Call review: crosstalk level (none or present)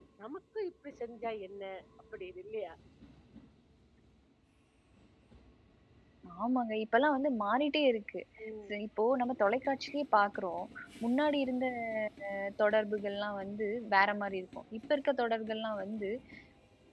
none